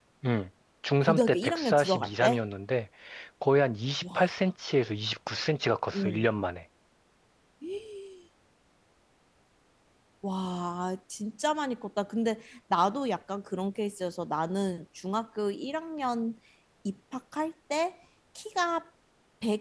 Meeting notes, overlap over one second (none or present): present